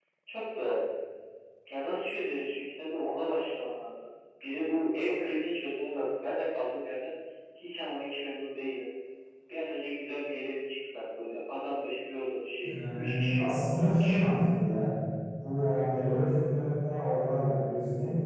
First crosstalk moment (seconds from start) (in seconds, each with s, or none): 12.6 s